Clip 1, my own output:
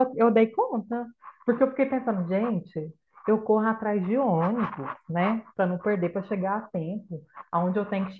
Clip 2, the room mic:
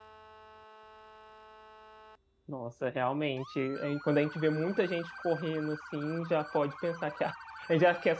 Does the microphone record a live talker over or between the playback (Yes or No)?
Yes